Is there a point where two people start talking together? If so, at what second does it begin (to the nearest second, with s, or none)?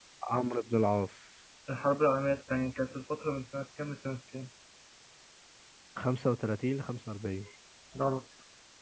none